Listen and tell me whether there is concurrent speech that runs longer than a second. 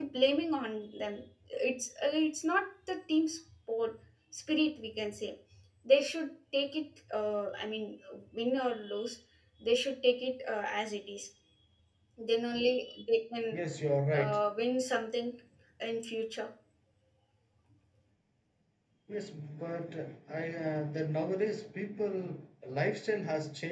No

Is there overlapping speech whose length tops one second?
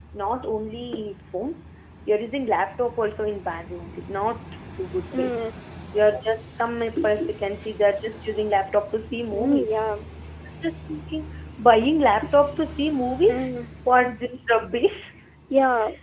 No

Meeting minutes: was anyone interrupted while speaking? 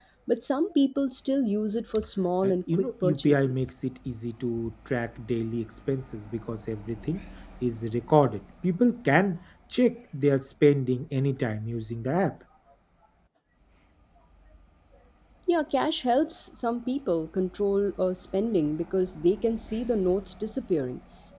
Yes, from 2.4 s

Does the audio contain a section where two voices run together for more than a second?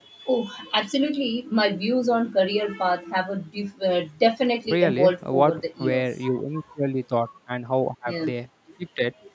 Yes, from 4.7 s

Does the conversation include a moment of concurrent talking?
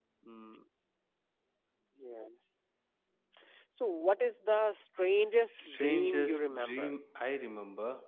Yes, from 5.5 s

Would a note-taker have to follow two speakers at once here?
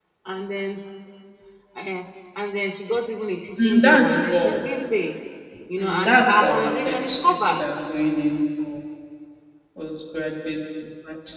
Yes, from 3.6 s

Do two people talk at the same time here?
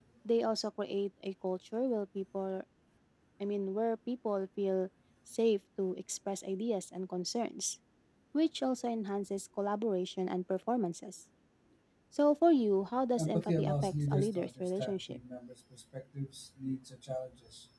Yes, from 13.2 s

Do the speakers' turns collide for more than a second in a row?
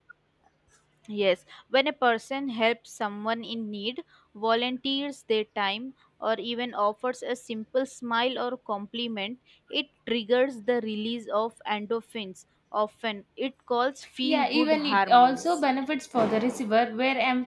Yes, from 14.2 s

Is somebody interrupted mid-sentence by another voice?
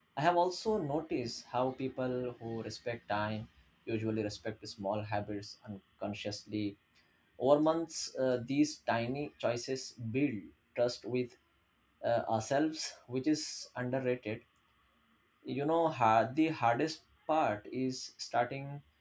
No

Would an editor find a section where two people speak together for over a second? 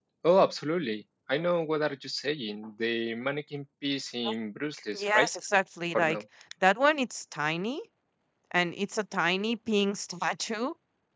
No

